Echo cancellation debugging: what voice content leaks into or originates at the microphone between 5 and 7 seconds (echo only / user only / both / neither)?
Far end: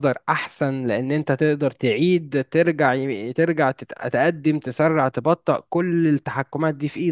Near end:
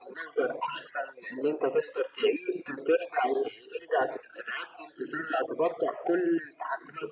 echo only